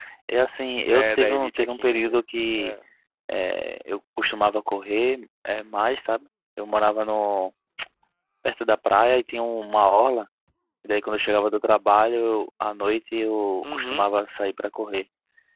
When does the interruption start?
1 s

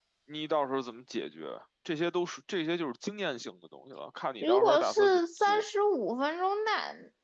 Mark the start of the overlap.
4 s

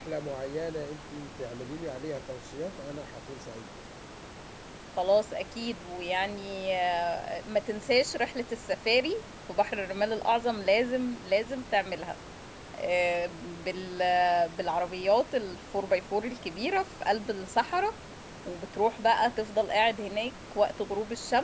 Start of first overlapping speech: none

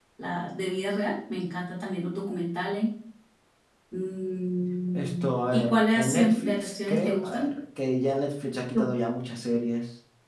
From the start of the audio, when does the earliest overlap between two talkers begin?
5 s

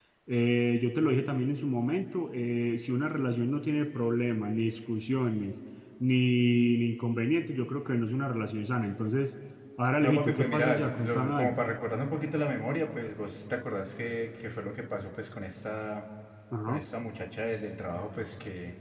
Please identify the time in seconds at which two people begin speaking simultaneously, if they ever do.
10 s

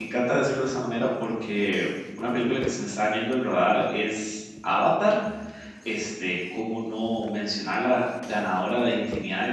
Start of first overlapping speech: none

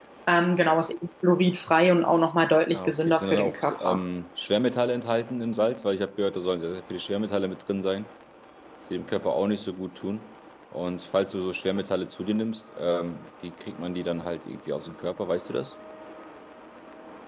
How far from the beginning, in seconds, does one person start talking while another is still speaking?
3 s

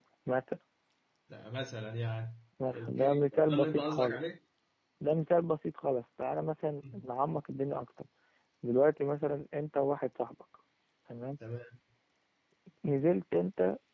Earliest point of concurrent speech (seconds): 3 s

